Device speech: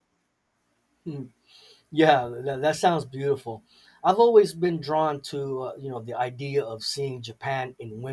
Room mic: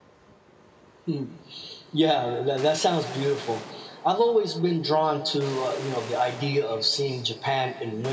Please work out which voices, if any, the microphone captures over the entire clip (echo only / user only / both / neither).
echo only